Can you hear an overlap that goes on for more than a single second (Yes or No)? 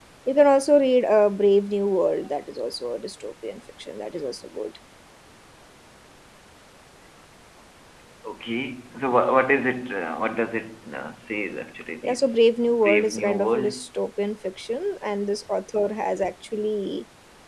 Yes